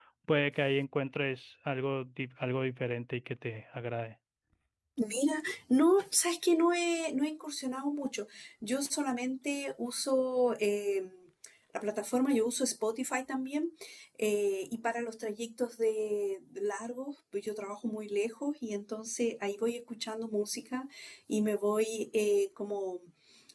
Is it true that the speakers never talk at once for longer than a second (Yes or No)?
Yes